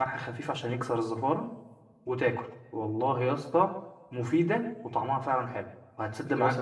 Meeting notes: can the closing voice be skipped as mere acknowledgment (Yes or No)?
No